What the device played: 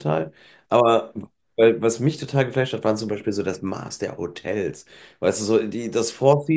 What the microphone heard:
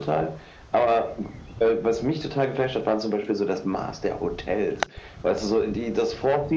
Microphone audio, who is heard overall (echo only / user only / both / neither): echo only